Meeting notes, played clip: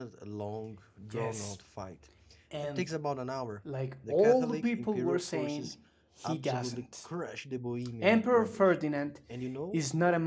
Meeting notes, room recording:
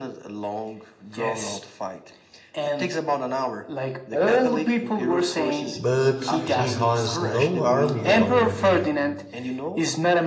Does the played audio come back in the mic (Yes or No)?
Yes